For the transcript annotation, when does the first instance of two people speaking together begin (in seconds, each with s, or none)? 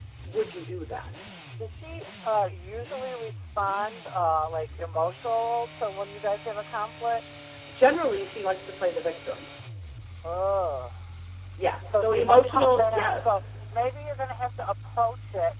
12.0 s